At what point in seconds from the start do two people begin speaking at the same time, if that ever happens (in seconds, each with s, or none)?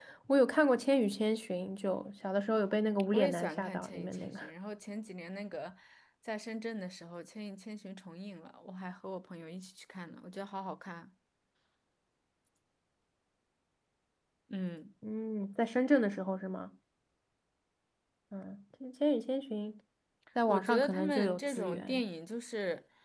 3.1 s